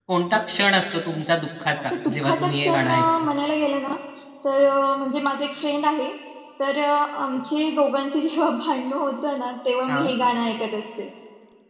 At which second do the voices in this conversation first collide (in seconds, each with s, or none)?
1.8 s